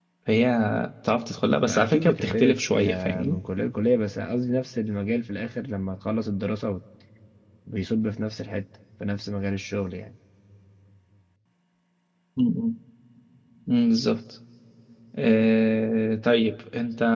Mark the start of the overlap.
1.6 s

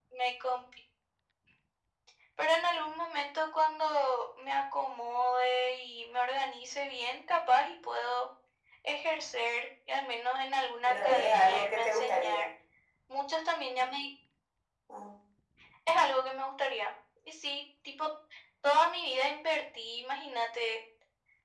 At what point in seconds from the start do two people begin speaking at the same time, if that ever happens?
10.9 s

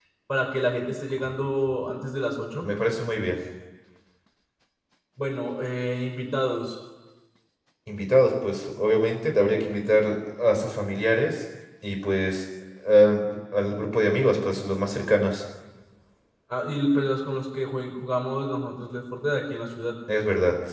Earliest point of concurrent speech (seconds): none

